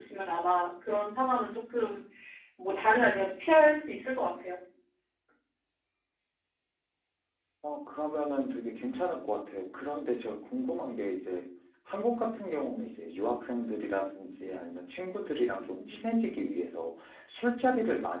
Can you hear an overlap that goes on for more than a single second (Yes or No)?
No